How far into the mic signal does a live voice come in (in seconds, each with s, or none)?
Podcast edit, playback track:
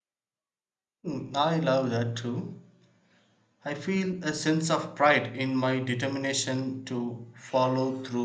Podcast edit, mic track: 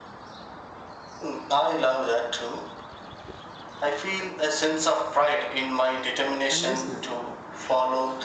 6.5 s